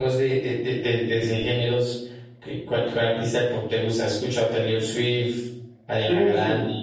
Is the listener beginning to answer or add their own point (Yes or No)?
Yes